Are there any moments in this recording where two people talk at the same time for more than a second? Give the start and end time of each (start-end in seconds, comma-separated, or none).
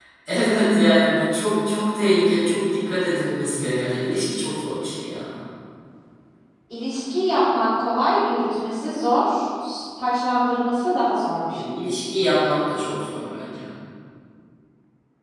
none